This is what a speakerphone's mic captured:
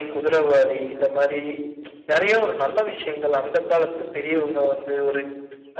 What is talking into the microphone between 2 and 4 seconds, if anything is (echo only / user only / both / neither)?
echo only